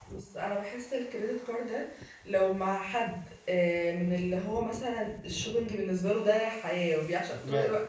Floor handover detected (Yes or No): No